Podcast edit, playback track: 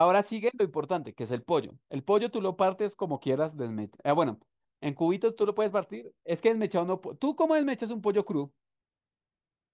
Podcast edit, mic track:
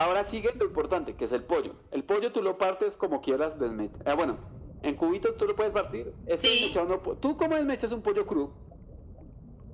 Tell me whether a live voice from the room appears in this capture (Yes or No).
Yes